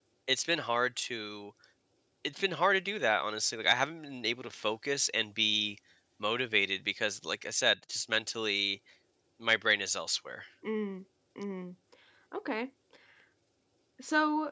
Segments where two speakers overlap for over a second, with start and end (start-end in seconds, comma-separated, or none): none